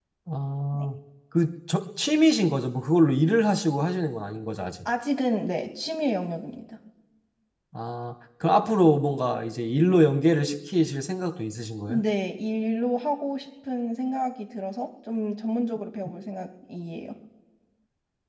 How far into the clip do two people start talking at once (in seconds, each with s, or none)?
none